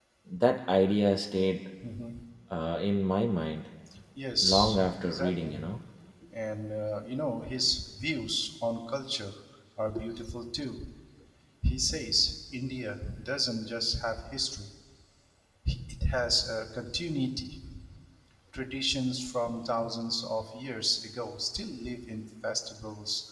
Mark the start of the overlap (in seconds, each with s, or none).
4.4 s